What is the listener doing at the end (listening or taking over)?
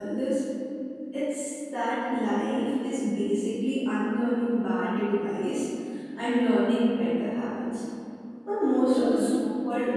listening